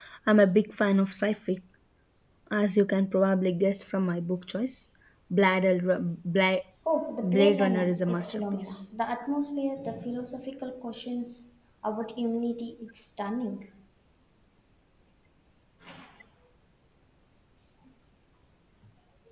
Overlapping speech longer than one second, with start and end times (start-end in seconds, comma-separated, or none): 7.2-8.9